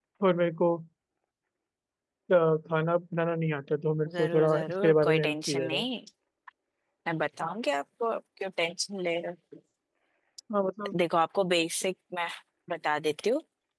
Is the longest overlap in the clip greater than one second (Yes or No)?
Yes